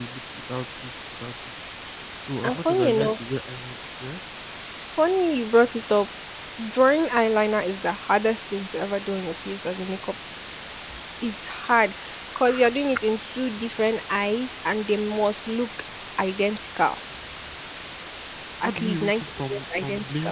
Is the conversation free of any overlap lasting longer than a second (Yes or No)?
No